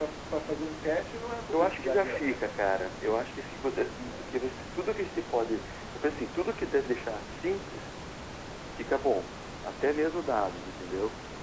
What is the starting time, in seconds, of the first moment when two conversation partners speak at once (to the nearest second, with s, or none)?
2 s